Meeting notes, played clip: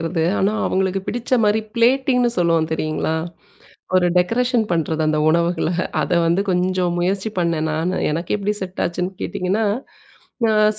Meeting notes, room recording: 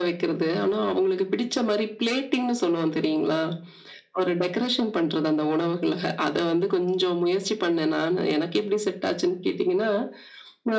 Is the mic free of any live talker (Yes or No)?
Yes